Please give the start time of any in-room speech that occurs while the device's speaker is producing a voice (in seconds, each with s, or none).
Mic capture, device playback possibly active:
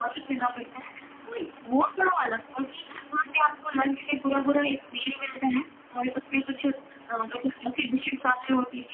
none